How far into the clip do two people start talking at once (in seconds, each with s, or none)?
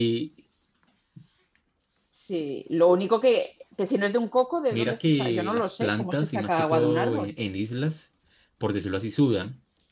4.7 s